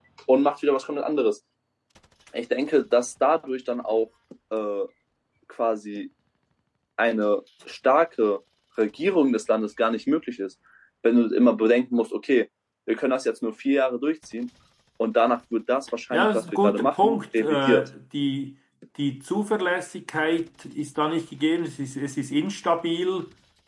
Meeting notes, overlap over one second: present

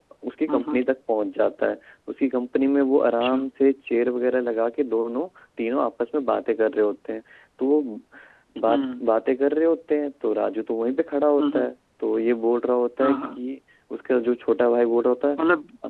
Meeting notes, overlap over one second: none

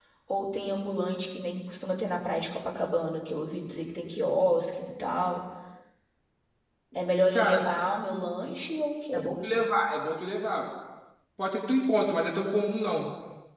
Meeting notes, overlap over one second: none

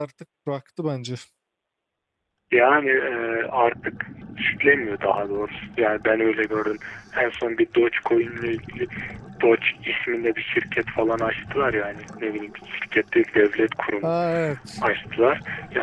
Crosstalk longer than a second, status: none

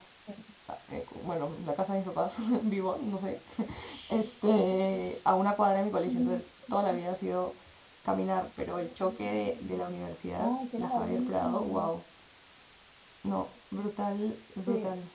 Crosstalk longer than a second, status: present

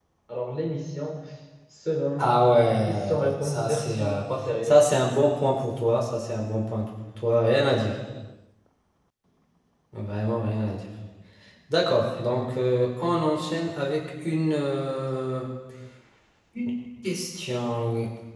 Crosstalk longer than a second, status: present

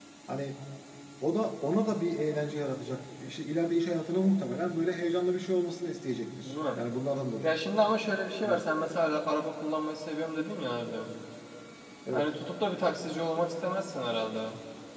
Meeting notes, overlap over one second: none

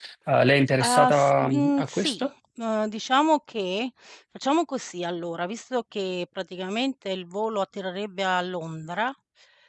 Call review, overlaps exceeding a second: present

